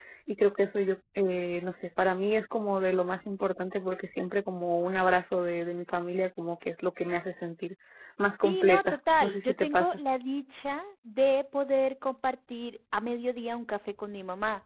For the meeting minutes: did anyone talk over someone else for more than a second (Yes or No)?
Yes